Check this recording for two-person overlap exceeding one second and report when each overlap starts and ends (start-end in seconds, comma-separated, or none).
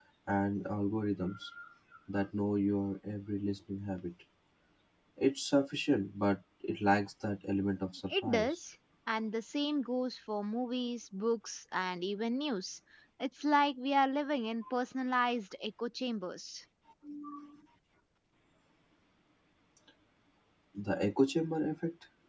none